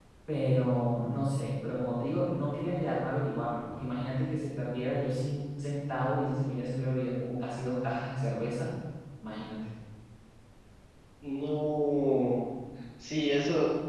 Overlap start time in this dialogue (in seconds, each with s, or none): none